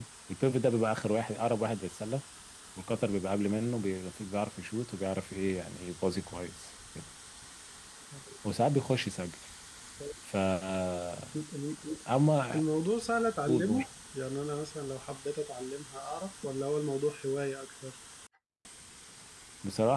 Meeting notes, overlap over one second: none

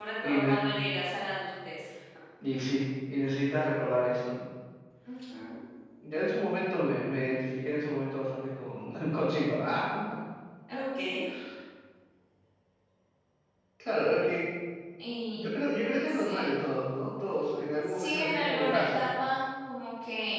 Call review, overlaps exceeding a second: present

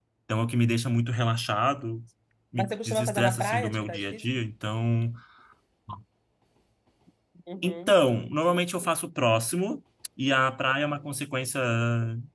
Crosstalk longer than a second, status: present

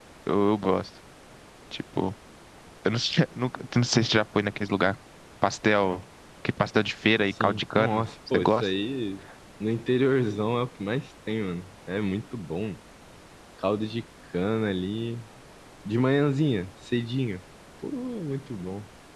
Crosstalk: present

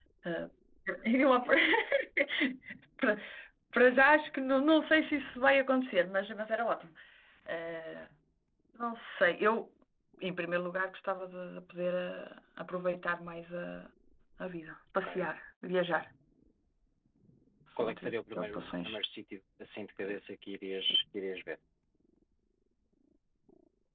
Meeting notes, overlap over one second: present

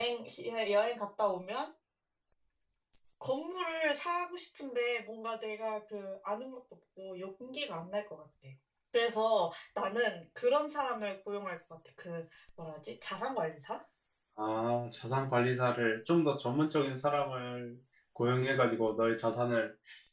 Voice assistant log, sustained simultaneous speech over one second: none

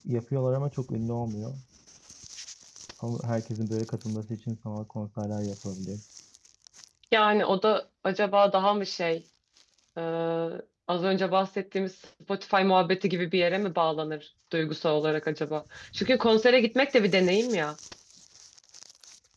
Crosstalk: none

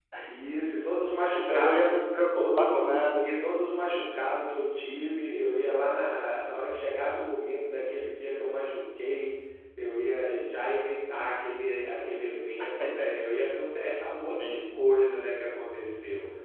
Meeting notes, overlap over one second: none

